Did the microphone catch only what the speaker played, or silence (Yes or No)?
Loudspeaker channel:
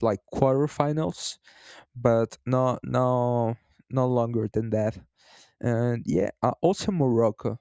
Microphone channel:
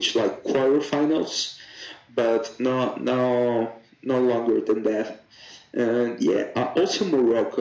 Yes